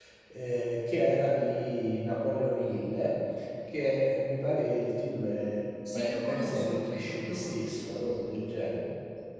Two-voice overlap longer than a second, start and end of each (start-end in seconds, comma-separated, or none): 5.9-8.0